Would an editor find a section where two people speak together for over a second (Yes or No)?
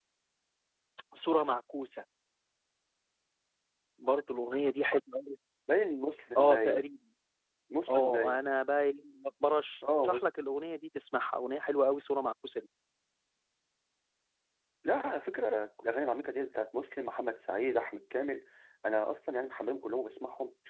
No